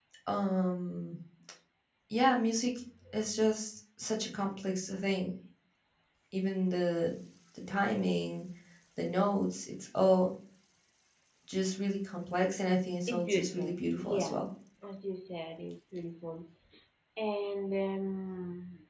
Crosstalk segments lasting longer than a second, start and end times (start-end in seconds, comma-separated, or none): 13.1-14.4